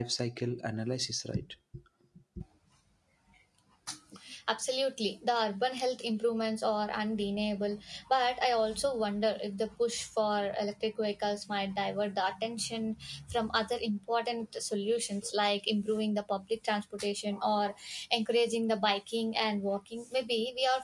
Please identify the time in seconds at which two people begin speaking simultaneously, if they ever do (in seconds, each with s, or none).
none